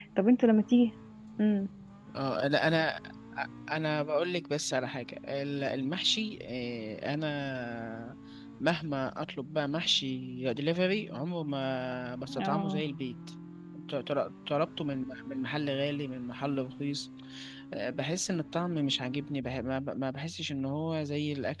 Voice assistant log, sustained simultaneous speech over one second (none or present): none